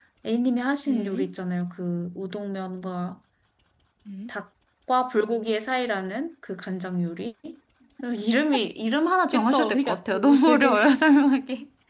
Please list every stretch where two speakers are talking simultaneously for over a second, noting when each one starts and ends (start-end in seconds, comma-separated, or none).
9.3-10.8